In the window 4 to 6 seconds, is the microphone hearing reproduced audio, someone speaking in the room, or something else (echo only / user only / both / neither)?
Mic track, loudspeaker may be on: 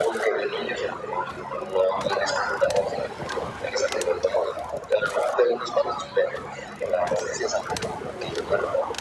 echo only